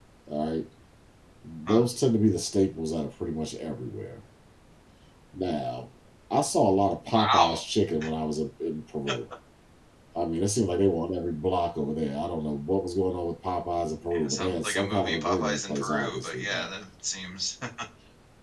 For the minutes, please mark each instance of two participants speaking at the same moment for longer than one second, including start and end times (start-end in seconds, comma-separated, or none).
14.1-16.7